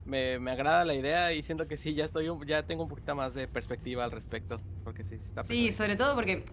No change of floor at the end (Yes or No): No